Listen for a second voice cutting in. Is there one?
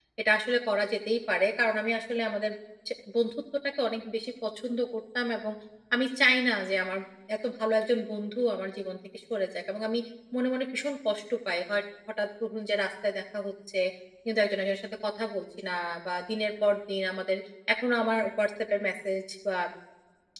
No

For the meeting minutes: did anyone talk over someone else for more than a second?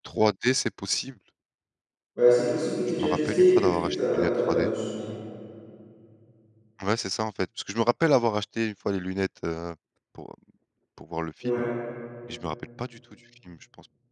Yes, from 3.0 s

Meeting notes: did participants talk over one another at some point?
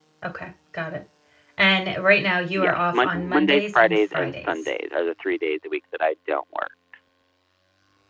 Yes, from 2.6 s

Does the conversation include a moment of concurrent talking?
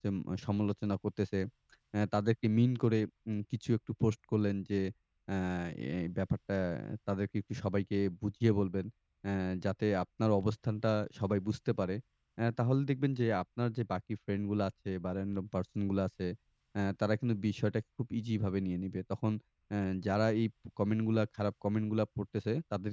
No

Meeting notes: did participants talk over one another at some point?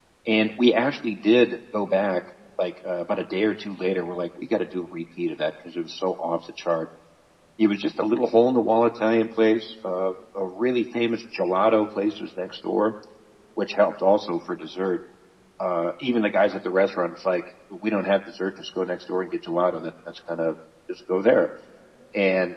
No

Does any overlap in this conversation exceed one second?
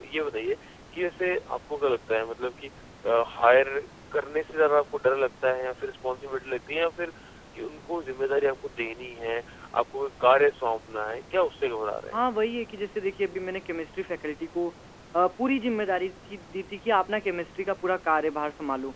No

